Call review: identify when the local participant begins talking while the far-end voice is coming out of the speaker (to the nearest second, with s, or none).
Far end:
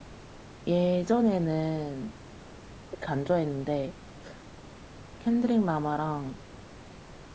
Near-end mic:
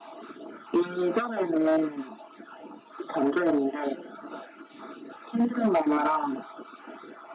none